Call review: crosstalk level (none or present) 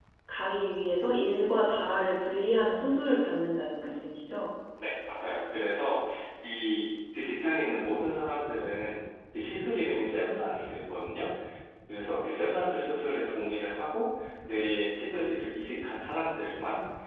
none